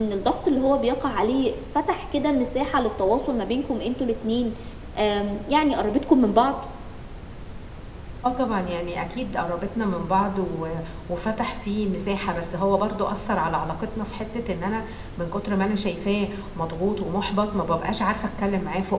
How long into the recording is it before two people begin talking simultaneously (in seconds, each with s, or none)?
none